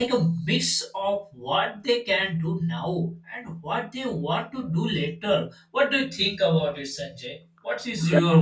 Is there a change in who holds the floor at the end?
Yes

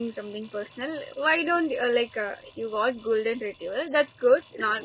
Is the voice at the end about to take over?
No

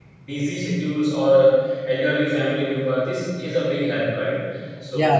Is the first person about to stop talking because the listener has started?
Yes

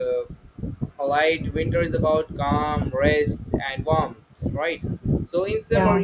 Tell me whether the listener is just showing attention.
Yes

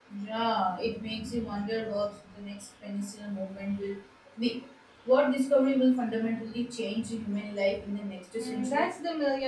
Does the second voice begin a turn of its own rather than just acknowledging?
Yes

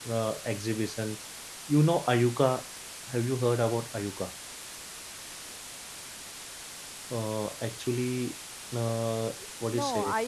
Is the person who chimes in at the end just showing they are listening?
No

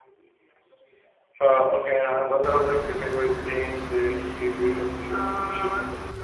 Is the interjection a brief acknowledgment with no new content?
No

